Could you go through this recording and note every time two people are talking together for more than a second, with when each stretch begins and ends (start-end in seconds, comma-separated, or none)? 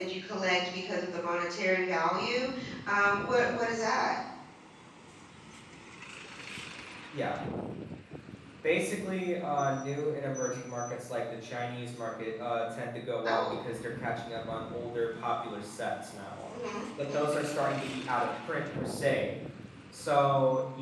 none